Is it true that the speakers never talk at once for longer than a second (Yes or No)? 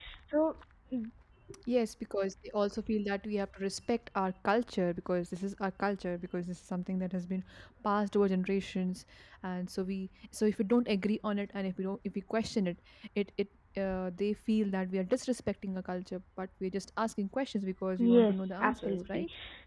No